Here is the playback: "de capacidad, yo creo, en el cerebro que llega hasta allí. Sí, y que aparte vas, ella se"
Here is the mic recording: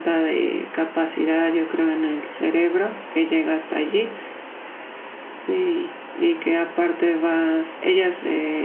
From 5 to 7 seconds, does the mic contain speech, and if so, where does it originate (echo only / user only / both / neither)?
echo only